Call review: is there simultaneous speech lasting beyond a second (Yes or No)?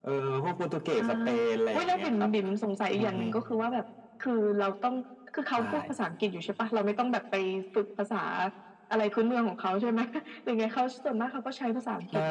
No